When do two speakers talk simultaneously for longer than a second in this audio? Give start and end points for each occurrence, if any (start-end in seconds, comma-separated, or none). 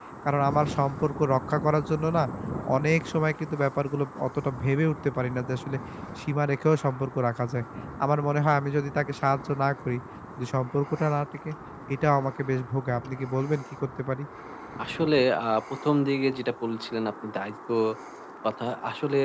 none